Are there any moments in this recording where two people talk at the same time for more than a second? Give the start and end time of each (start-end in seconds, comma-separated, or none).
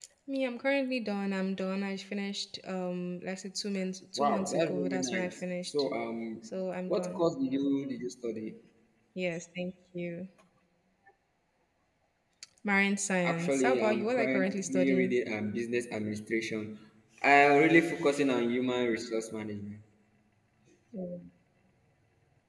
4.2-5.7, 13.2-15.1